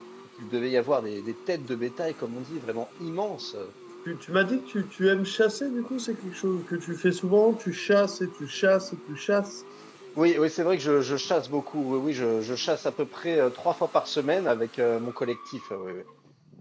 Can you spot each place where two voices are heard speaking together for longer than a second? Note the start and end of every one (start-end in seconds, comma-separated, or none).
none